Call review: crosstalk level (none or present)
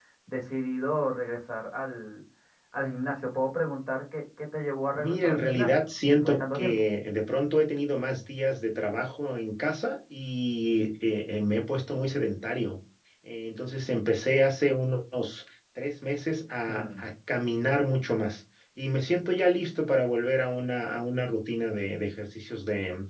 present